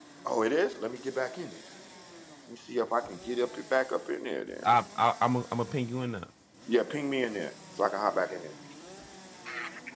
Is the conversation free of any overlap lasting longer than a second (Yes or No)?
Yes